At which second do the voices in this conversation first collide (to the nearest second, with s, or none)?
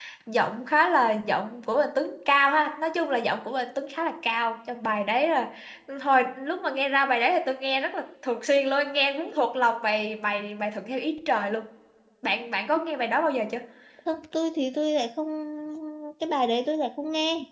none